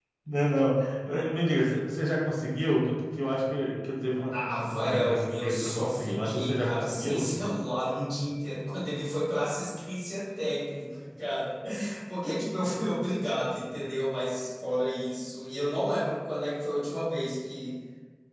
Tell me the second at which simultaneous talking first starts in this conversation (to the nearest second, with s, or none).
4 s